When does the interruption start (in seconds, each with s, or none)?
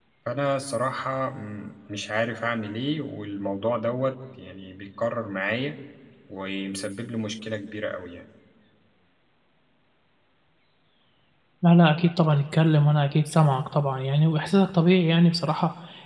none